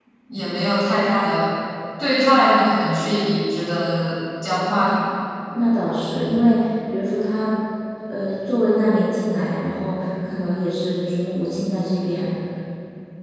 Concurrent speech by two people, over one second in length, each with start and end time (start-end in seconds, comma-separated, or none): none